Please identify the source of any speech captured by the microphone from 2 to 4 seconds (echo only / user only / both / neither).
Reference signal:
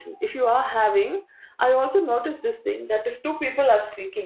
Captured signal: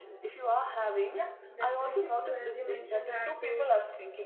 both